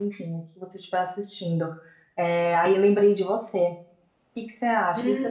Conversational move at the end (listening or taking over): listening